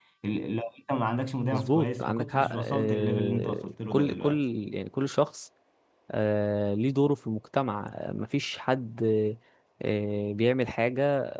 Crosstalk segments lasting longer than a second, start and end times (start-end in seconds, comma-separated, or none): 1.4-4.4